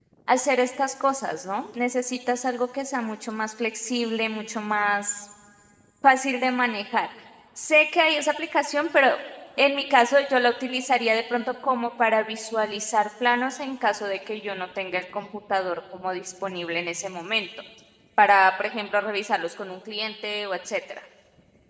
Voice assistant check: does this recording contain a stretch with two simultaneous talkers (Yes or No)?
No